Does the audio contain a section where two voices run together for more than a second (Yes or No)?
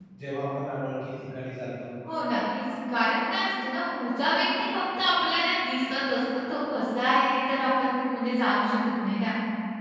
No